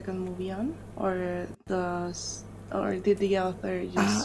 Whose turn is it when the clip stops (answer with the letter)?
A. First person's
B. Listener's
B